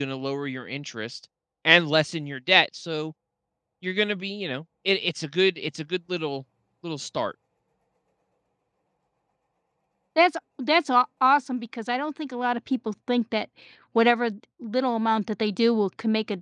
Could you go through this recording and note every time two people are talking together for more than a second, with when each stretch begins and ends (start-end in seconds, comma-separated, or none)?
none